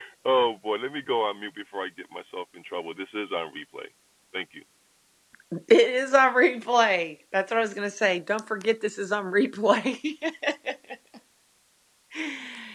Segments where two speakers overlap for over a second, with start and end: none

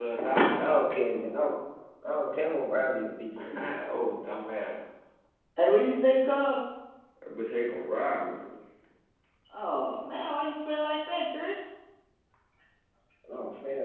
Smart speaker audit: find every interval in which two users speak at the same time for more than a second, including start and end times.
none

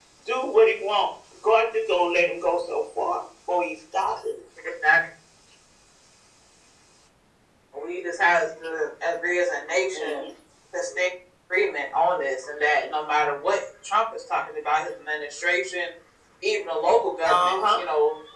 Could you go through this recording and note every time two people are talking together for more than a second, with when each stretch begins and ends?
none

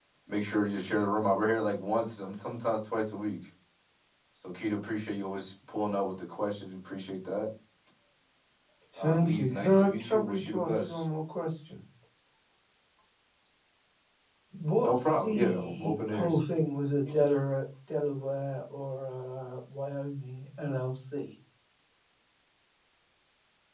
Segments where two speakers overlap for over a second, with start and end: 9.0-11.0, 14.8-16.4

